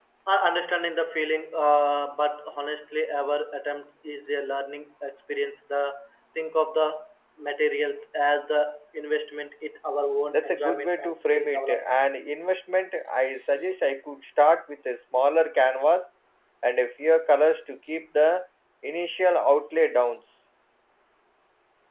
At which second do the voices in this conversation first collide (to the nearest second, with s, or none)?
10 s